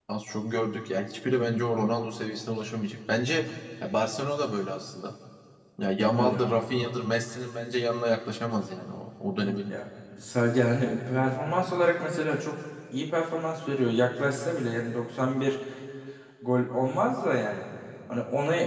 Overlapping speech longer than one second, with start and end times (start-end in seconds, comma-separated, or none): none